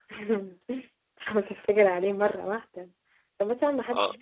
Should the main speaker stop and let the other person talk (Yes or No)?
No